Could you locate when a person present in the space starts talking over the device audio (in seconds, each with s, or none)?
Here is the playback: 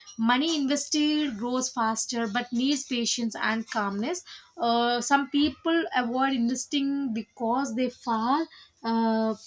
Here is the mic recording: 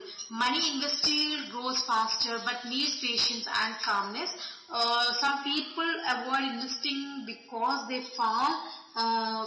none